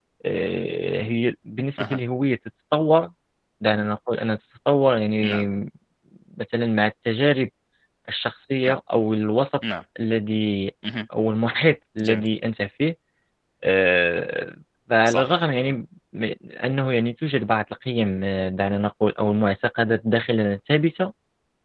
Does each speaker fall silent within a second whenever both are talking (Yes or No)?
Yes